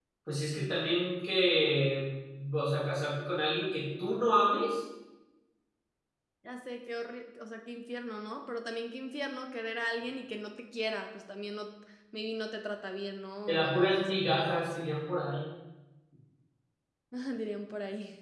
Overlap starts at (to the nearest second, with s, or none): 13 s